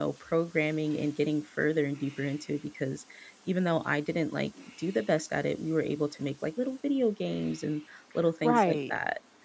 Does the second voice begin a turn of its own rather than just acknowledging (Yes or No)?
Yes